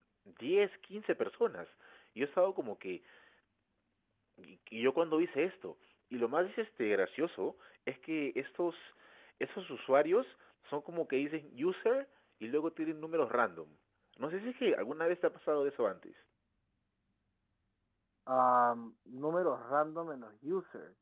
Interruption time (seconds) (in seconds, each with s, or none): none